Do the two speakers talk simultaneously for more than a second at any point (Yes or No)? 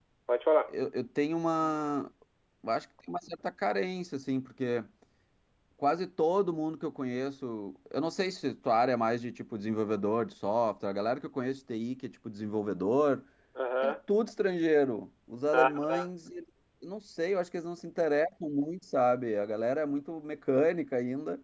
No